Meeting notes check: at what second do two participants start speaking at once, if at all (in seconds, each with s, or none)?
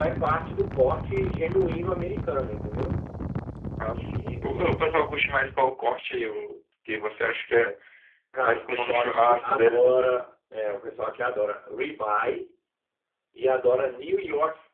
8.4 s